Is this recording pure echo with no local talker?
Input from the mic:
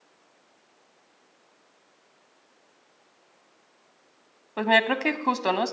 No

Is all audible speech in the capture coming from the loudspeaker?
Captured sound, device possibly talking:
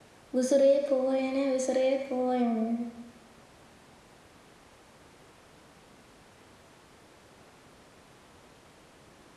No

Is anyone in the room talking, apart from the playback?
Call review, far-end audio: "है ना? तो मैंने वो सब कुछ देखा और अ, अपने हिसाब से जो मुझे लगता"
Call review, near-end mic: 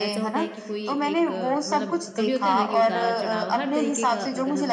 Yes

